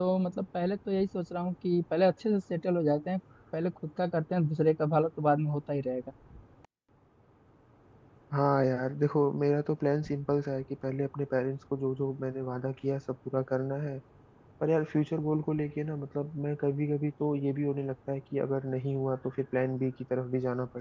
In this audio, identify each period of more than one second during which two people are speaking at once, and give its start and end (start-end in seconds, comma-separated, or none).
none